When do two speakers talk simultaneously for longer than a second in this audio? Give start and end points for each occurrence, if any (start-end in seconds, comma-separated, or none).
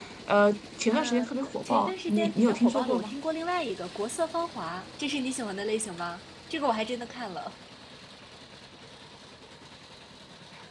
1.6-3.1